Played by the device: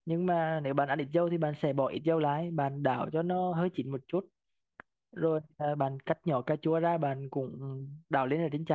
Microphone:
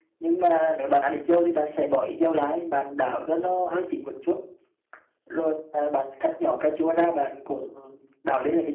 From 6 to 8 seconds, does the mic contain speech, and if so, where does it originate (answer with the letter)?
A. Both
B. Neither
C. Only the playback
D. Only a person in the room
C